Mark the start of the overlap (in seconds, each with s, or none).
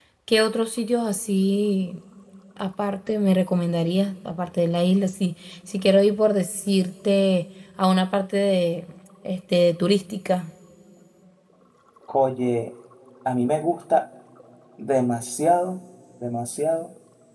none